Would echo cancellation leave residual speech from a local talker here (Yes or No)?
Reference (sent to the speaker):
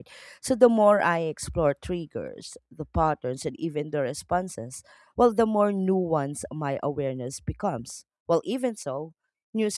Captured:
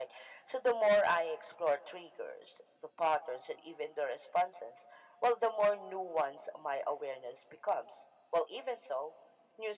No